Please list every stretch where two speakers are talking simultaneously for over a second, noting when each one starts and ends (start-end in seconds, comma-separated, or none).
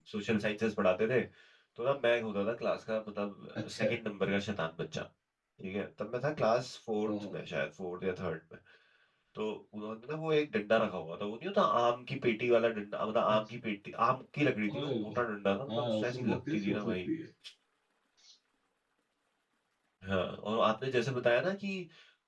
15.7-17.1